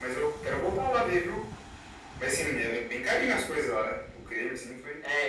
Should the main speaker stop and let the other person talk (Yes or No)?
Yes